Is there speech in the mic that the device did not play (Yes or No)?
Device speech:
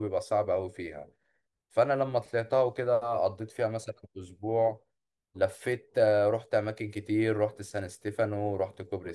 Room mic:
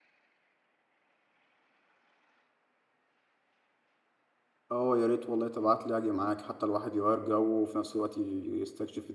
Yes